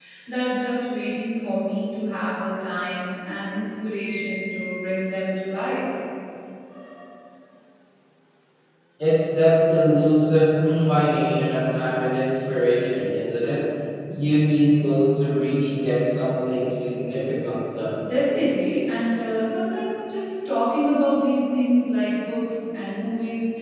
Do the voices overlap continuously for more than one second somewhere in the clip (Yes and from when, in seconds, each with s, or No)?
No